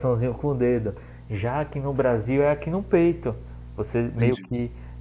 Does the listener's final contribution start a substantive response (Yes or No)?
No